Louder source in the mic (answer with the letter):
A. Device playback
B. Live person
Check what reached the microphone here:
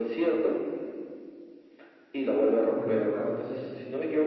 A